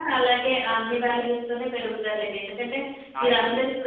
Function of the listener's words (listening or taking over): listening